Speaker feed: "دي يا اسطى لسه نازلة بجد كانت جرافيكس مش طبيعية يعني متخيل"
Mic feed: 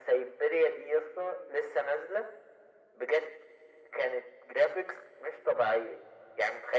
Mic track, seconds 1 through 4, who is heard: echo only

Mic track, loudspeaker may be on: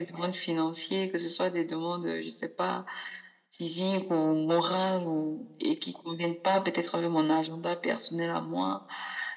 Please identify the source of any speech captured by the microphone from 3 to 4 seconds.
echo only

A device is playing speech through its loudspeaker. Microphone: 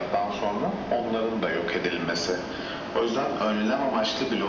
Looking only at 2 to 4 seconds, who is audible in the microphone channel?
echo only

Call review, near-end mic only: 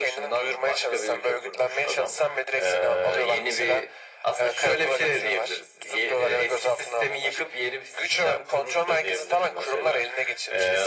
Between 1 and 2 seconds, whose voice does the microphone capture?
echo only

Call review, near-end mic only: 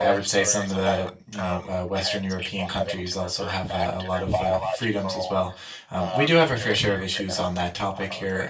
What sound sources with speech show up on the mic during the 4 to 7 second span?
both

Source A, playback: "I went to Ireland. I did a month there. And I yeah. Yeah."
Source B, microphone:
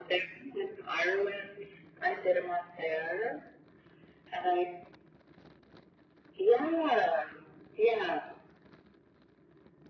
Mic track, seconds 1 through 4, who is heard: echo only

